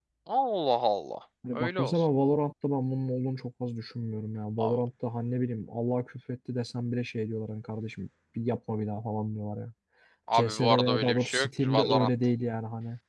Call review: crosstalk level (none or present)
present